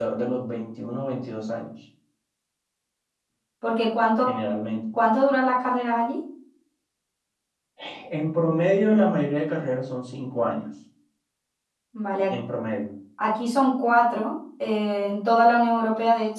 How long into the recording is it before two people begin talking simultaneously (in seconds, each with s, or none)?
none